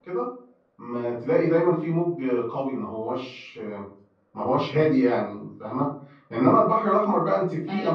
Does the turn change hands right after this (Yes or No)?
No